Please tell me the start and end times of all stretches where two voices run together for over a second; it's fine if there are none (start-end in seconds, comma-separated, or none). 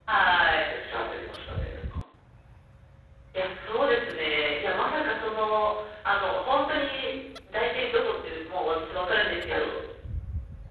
none